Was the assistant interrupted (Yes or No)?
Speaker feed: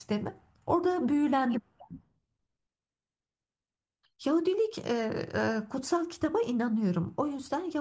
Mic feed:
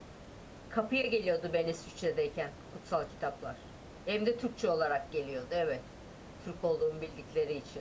Yes